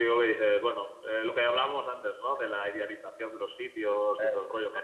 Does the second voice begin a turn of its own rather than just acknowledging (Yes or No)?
No